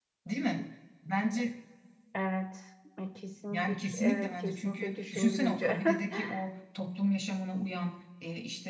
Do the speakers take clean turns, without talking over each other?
No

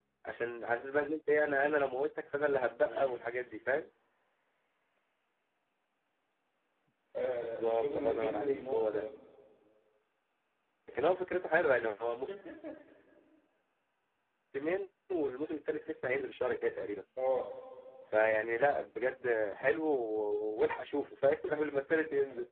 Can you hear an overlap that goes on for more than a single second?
Yes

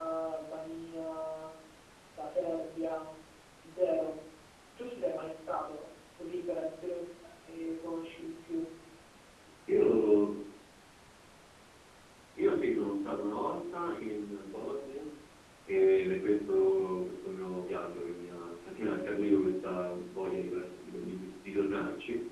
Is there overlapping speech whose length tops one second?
No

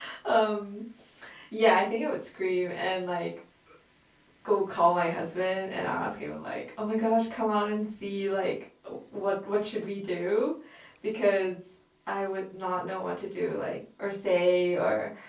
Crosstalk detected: No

